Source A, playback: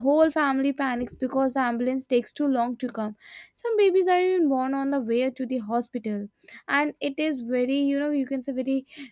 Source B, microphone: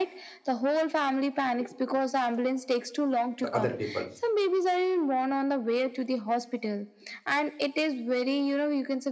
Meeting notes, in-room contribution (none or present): present